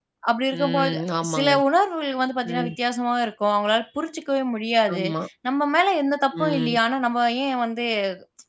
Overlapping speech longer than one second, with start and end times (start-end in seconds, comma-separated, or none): none